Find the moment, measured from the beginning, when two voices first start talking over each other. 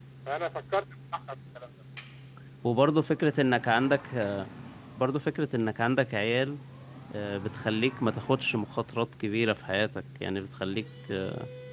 none

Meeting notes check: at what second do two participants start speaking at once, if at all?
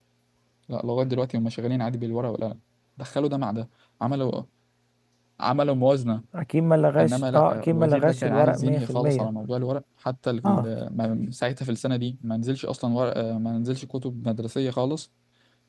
7 s

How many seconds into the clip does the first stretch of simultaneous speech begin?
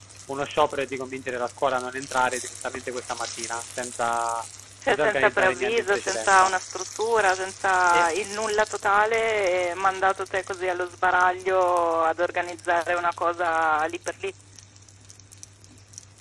5 s

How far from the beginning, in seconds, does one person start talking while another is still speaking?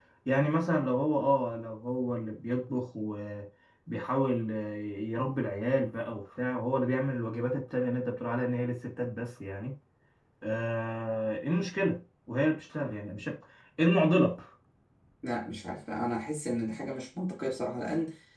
none

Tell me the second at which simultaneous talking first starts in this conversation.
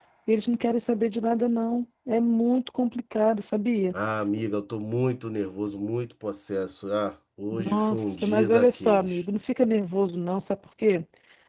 8 s

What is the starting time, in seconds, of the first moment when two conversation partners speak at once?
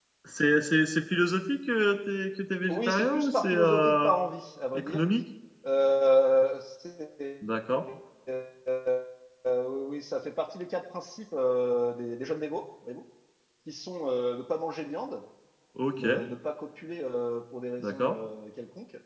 3 s

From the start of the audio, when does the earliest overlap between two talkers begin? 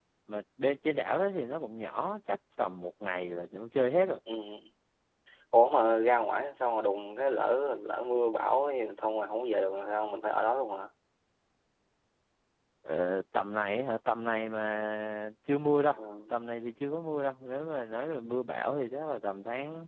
none

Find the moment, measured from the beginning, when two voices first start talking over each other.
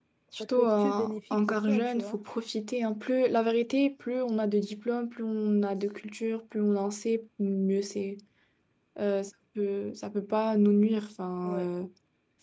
1 s

